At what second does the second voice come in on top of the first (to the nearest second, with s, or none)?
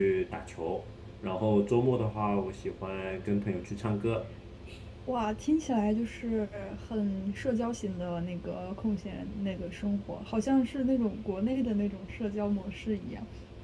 none